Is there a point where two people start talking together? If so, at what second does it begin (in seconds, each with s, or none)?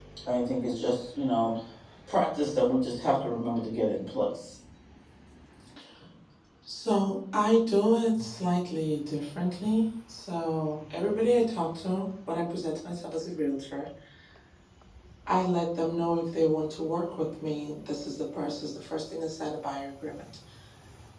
none